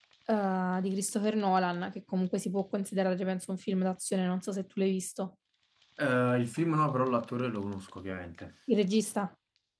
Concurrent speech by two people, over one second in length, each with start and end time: none

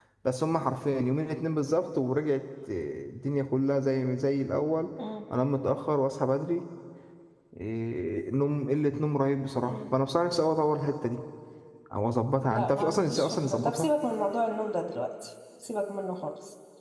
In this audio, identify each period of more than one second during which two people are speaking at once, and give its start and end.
12.4-13.9

